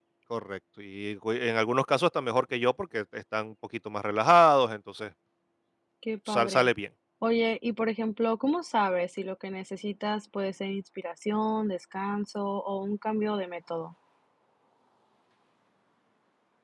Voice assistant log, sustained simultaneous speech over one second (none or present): none